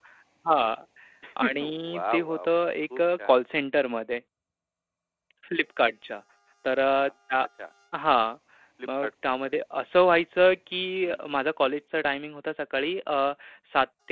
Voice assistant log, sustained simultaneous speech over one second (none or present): present